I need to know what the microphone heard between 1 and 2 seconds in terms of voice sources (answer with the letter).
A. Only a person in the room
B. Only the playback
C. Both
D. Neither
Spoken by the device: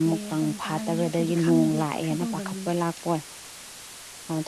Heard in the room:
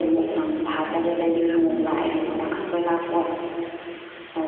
B